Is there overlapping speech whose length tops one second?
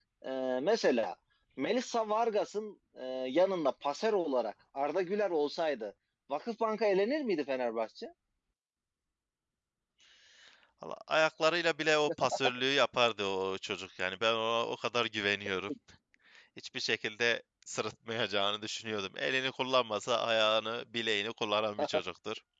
No

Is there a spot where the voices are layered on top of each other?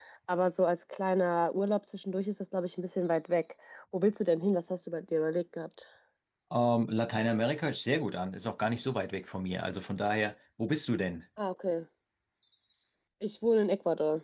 No

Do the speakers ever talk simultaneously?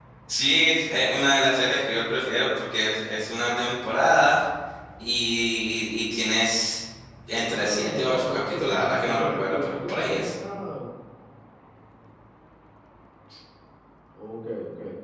Yes, from 7.4 s

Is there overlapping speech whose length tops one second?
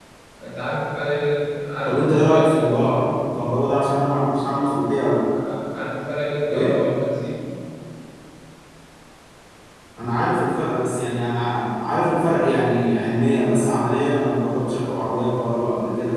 Yes, from 1.8 s

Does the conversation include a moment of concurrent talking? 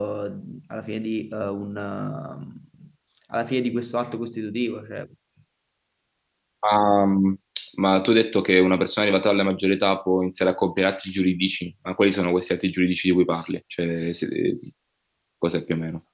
No

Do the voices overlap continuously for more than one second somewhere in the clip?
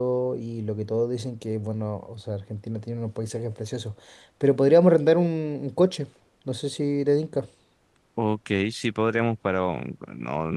No

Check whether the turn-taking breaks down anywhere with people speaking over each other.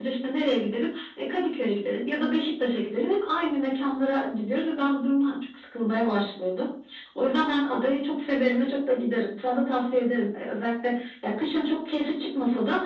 No

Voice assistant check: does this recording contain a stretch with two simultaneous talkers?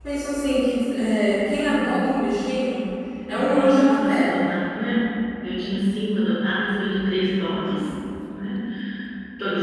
Yes, from 3.3 s

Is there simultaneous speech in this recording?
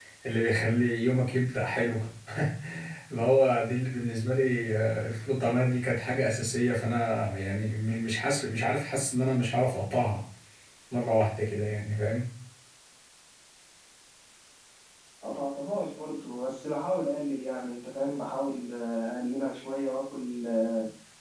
No

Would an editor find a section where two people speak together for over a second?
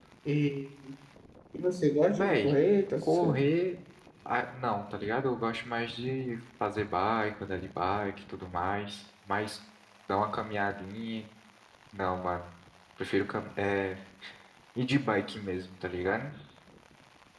No

